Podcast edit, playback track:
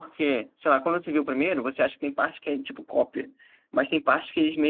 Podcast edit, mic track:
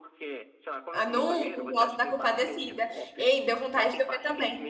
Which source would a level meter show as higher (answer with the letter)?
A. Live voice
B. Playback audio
A